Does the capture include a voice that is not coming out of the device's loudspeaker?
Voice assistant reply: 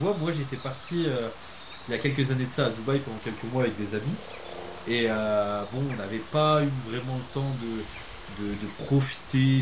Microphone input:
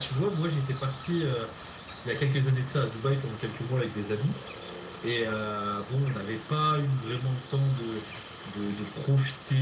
No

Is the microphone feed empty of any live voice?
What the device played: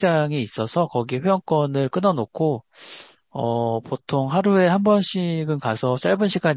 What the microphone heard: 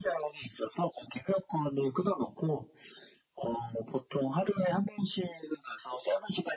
Yes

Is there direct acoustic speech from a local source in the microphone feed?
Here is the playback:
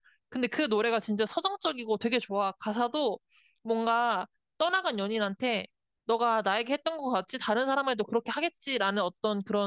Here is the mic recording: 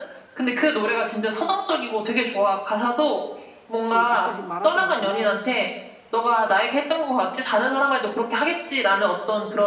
Yes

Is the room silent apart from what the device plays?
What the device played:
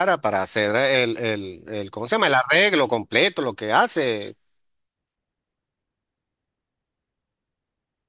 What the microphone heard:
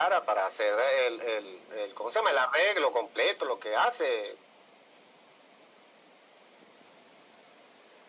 Yes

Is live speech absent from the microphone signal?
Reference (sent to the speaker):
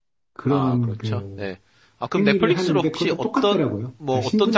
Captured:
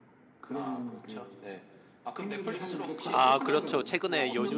No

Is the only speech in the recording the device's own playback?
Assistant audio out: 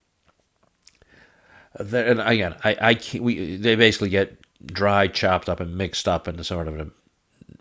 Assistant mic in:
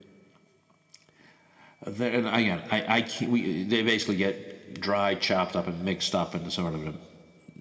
Yes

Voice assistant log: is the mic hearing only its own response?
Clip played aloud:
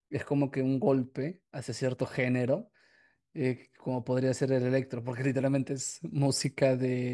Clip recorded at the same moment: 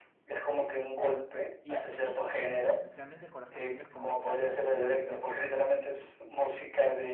No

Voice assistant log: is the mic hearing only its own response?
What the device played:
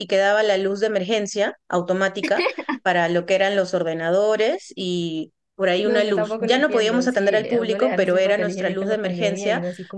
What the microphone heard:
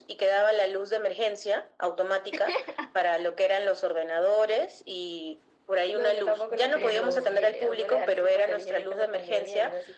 No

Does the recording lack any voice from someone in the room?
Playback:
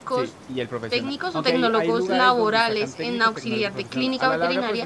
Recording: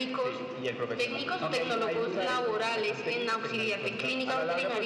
Yes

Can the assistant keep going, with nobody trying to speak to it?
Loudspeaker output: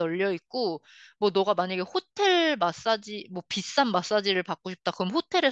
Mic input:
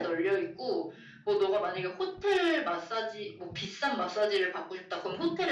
Yes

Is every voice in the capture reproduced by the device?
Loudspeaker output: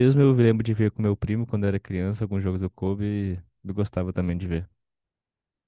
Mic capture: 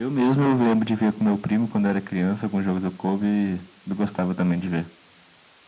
Yes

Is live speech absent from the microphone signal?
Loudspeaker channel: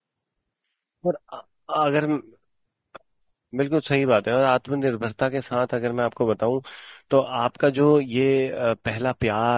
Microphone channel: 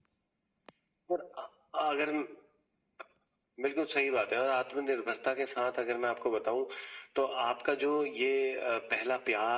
Yes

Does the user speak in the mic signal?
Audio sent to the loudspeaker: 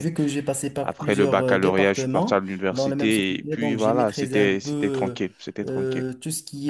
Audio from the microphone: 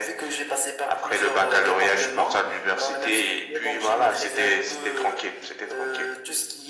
No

